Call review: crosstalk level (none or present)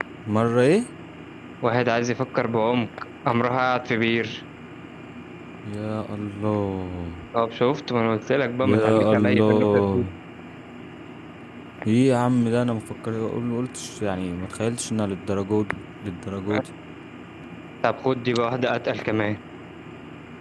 present